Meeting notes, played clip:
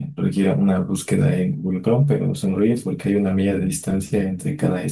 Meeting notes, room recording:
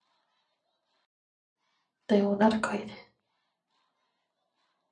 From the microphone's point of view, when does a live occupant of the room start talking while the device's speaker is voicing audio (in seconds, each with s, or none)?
2.1 s